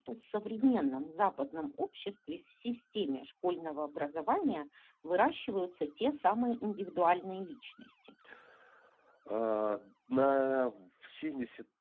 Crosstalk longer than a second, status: none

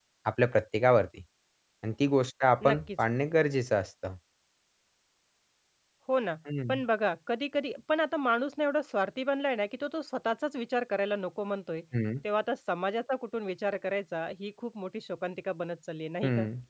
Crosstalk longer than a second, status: none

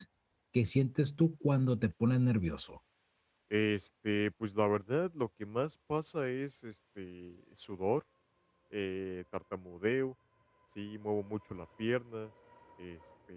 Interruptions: none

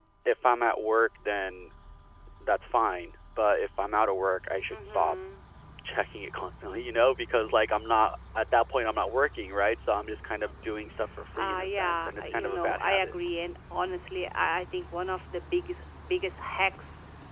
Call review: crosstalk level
present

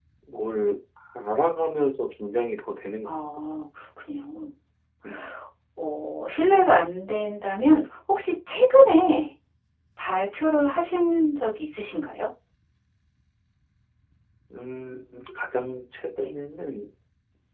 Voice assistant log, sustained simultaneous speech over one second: none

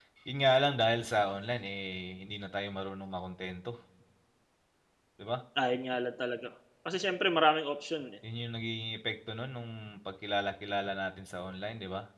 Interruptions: none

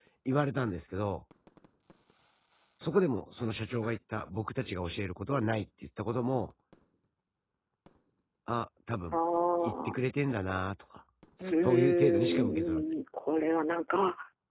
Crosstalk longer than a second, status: present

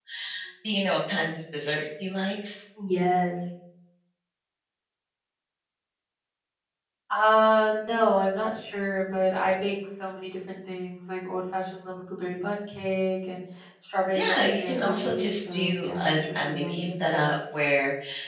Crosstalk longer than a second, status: present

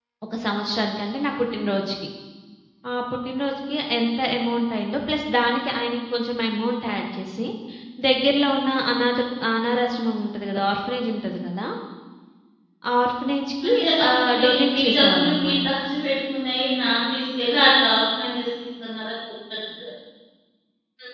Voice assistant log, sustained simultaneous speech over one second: present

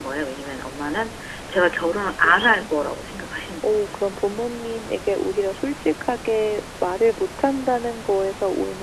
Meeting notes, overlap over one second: present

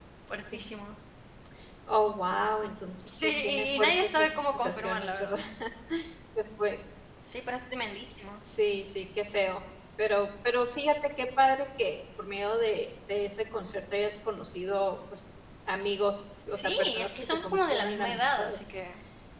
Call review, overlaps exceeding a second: present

